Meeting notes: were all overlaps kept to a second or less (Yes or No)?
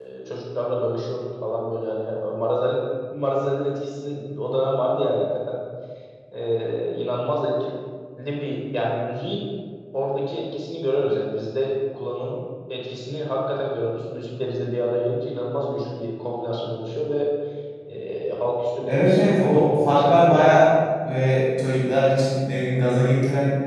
No